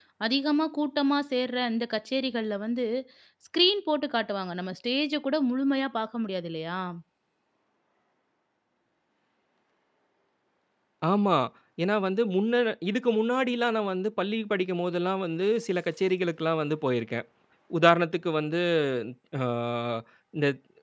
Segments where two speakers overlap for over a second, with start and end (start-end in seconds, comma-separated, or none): none